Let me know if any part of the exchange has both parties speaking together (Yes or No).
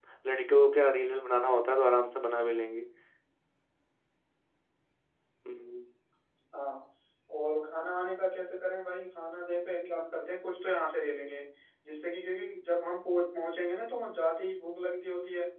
No